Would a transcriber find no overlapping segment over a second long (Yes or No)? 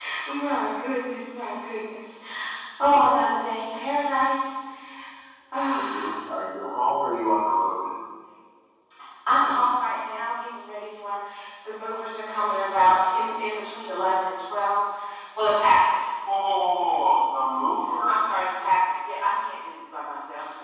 Yes